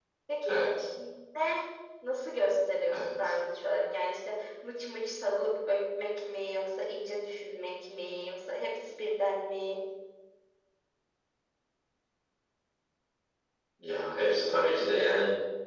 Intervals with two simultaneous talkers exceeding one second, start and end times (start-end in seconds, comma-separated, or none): none